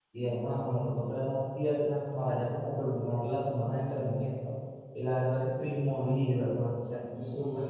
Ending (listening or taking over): taking over